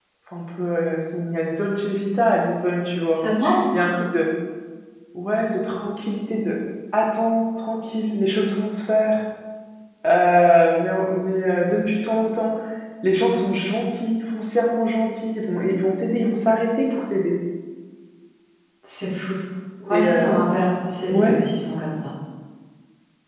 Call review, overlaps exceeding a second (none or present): none